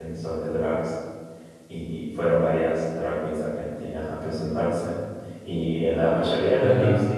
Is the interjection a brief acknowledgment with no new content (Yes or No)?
Yes